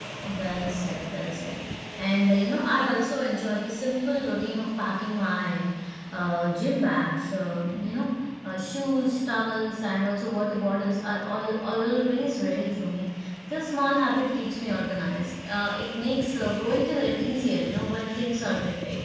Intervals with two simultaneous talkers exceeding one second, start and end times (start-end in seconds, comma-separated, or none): none